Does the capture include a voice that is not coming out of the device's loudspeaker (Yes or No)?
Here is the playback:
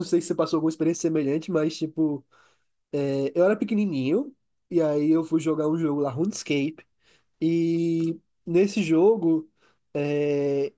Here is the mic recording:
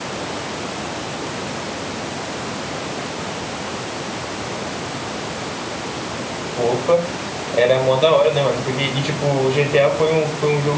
Yes